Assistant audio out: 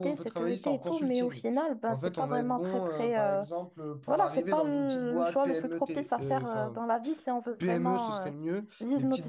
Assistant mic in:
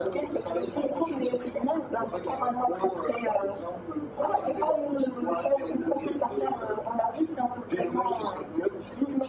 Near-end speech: none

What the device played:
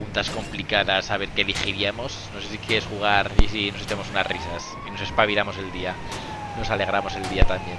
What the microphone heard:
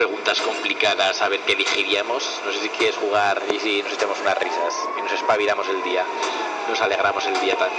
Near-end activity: none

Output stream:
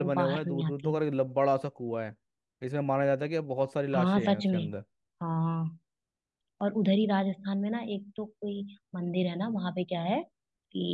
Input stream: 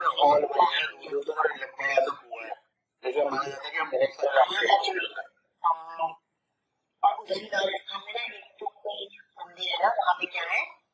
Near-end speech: none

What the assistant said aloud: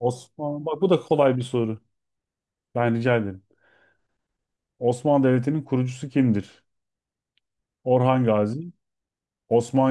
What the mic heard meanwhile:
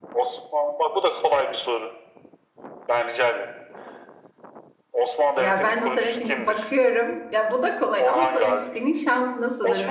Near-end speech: present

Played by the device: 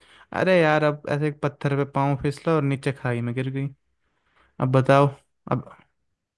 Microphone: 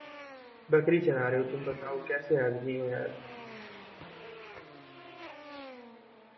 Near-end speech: present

